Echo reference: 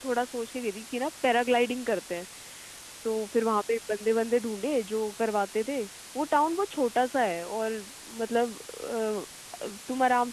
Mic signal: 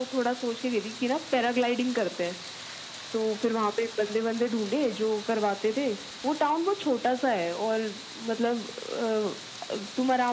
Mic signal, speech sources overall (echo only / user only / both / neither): echo only